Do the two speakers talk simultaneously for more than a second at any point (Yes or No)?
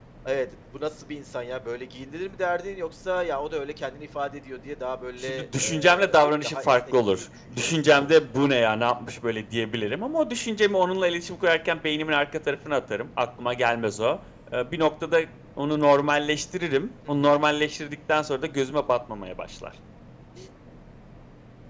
Yes